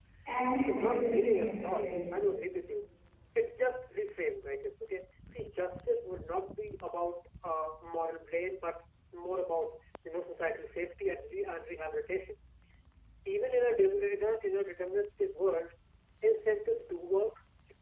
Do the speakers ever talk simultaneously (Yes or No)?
Yes